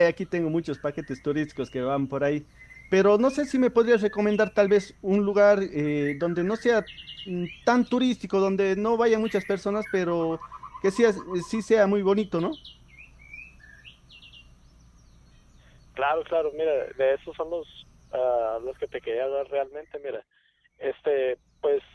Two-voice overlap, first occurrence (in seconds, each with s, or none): none